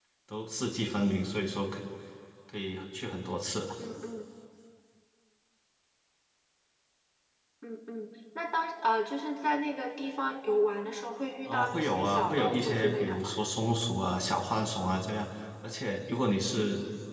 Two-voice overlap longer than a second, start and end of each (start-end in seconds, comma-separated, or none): 11.5-13.3